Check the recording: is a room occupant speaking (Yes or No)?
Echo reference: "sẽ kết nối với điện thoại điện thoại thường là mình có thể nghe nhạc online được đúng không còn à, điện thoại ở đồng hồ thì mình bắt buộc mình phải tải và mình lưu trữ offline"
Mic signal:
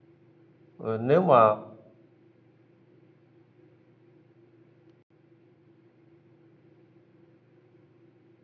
Yes